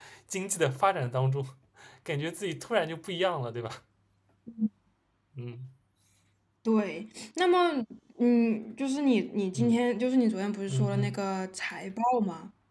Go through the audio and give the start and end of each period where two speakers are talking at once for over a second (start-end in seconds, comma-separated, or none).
none